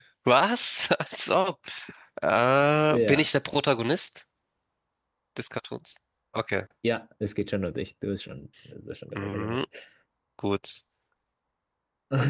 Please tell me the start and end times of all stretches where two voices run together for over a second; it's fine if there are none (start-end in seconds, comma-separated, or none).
none